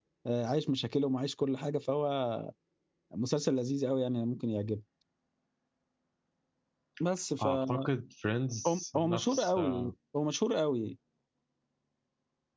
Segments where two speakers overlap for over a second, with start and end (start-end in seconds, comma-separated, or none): 8.7-9.9